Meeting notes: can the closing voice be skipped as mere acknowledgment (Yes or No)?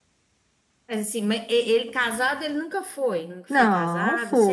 No